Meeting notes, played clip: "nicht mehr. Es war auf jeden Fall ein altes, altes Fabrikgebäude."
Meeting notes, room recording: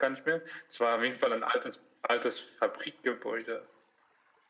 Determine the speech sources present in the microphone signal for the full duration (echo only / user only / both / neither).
echo only